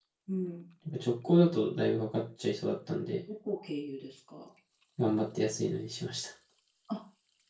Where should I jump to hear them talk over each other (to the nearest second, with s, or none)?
none